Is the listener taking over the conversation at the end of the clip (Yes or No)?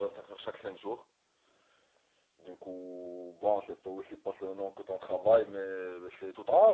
Yes